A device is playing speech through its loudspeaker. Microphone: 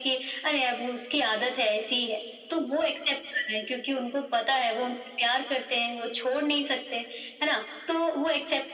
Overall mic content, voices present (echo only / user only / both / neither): echo only